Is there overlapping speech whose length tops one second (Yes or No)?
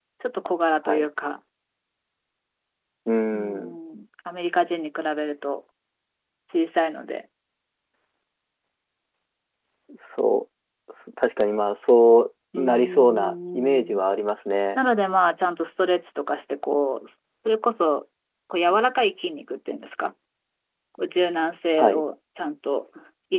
Yes